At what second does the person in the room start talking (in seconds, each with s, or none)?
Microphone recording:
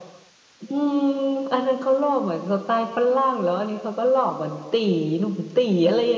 none